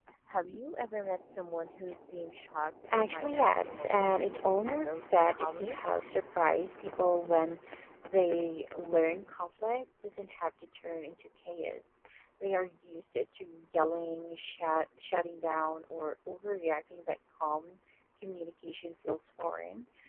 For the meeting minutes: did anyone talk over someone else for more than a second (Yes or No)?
Yes